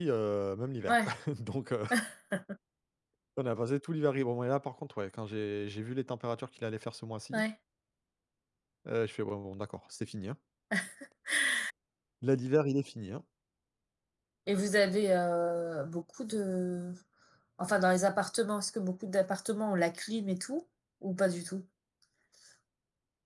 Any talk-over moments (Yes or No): No